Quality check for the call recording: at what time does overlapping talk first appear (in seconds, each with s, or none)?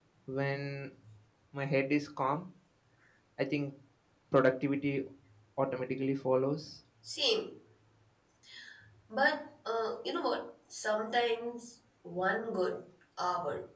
none